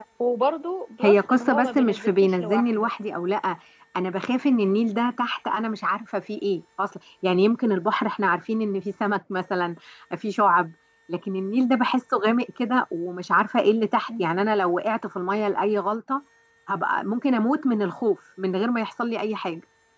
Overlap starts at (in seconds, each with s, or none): 1.0 s